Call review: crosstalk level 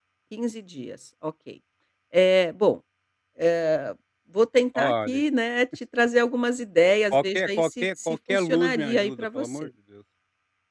present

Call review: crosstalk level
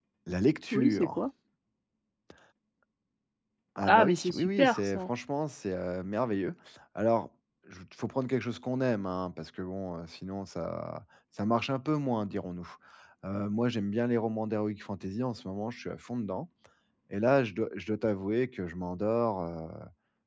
present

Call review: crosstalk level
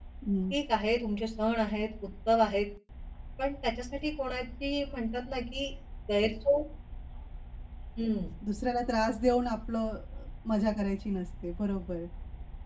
none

